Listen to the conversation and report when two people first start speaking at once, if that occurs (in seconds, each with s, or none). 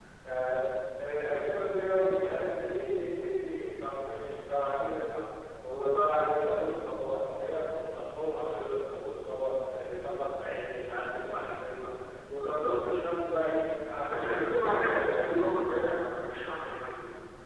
14.1 s